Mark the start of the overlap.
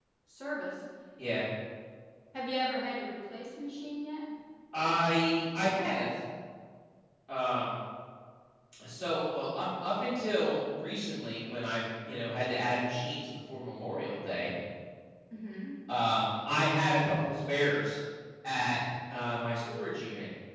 none

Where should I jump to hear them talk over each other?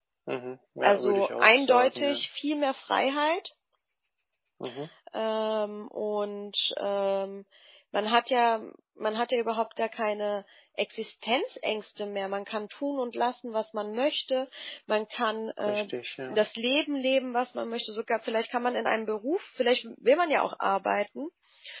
0.8 s

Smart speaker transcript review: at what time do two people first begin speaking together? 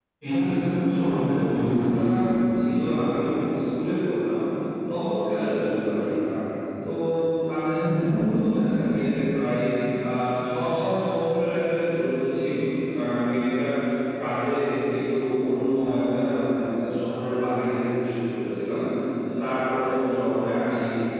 0.8 s

